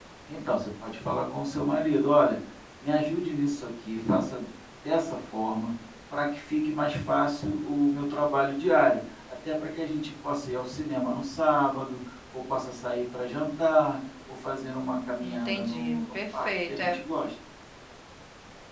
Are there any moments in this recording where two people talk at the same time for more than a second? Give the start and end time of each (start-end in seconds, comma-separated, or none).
15.2-16.9